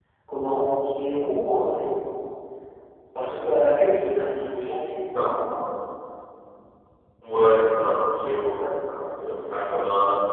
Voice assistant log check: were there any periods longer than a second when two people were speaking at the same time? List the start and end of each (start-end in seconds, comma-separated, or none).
none